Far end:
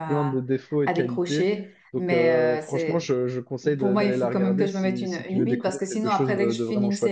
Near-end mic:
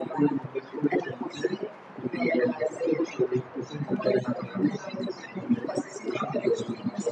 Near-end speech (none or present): none